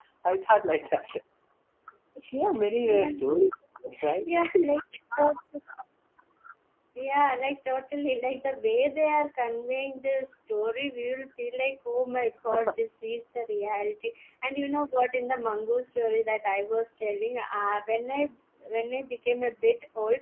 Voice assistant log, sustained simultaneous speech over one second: none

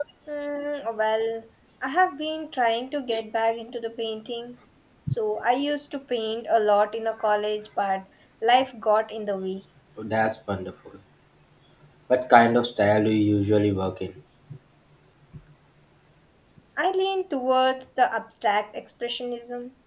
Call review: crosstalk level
none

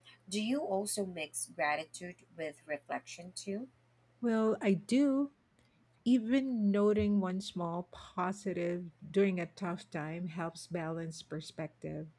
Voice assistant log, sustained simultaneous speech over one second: none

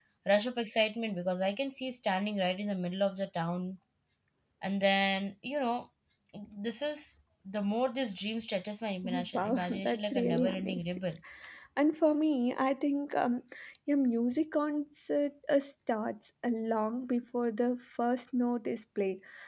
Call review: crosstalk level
present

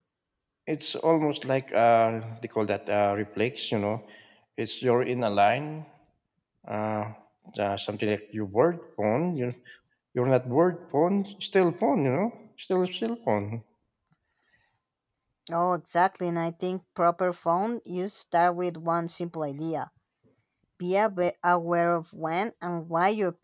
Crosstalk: none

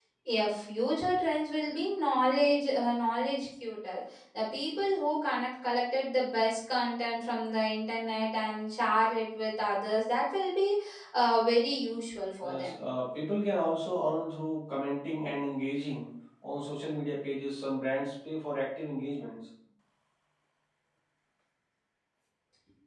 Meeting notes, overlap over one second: none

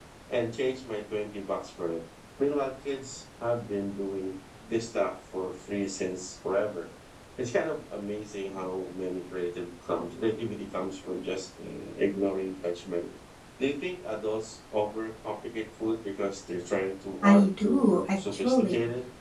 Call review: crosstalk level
present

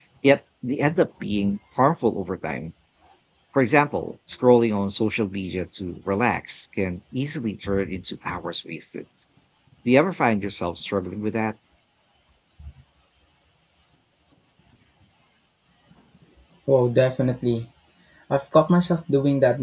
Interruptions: none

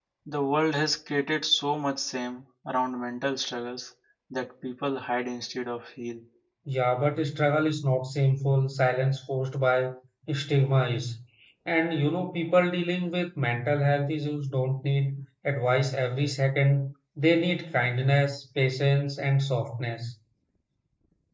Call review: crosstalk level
none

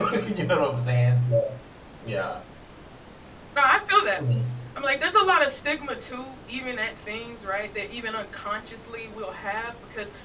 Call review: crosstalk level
none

